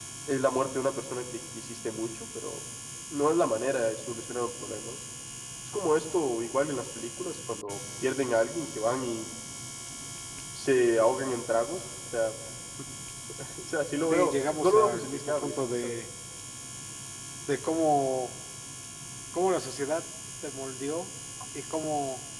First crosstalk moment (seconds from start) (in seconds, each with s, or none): 14.1 s